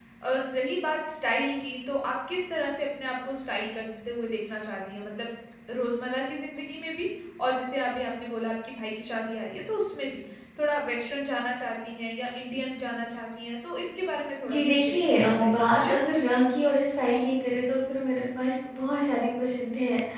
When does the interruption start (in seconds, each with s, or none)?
14.4 s